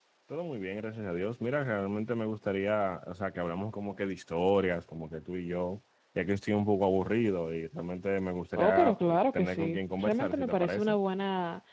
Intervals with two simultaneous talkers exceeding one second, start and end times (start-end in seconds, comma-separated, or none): 8.6-10.9